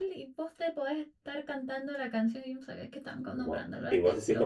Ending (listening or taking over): taking over